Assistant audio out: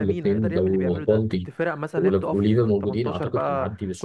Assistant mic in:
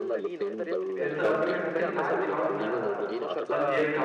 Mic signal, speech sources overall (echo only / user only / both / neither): both